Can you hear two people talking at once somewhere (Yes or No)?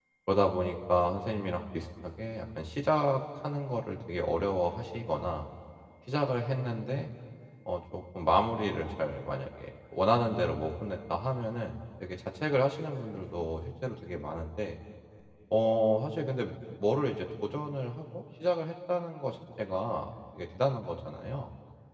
No